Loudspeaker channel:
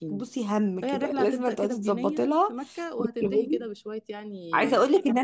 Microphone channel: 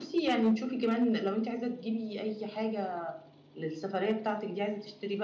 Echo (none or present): none